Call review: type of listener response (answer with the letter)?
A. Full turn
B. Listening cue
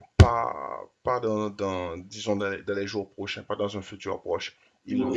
B